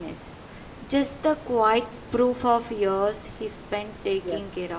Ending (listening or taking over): taking over